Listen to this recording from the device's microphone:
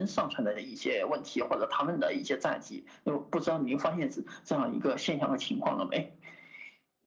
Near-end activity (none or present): none